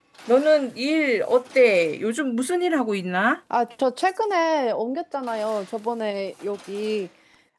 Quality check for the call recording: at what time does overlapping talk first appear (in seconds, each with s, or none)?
none